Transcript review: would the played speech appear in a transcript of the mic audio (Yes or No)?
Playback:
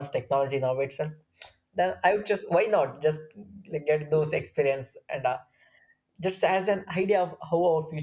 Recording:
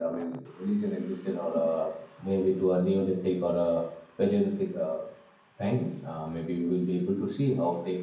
No